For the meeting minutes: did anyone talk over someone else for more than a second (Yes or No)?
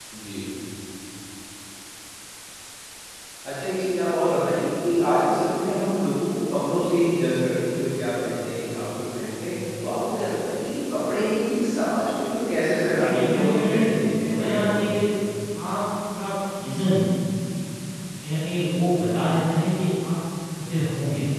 Yes